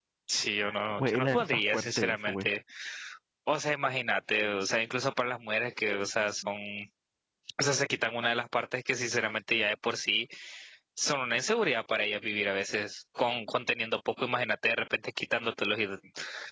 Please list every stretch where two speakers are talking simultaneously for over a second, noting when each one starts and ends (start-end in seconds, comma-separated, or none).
1.0-2.5